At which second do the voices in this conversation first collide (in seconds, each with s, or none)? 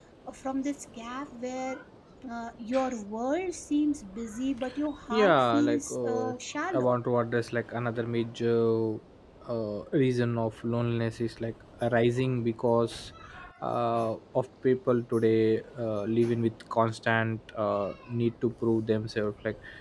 5.1 s